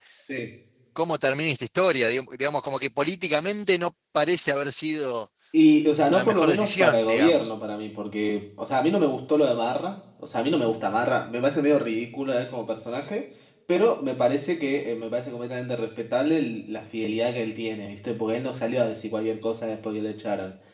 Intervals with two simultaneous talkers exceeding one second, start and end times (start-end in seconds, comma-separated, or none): 6.1-7.5